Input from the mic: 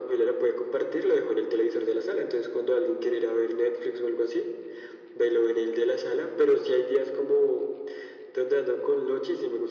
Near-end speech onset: none

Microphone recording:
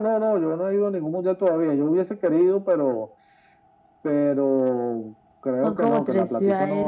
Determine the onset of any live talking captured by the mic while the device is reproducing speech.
5.6 s

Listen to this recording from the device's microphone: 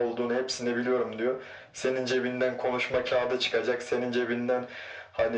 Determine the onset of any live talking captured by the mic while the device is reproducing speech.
none

